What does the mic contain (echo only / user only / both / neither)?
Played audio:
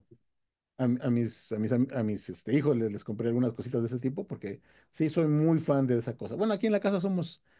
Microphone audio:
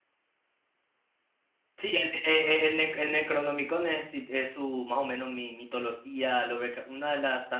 user only